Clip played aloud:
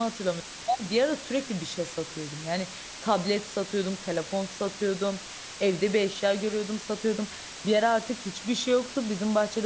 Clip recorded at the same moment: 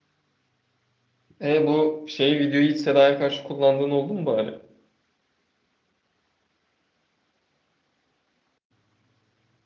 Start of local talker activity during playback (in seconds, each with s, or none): 1.4 s